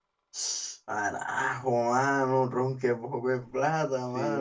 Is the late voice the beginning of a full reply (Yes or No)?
Yes